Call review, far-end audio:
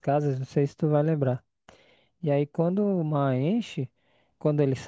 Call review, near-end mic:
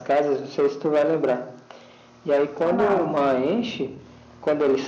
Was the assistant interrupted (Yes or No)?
Yes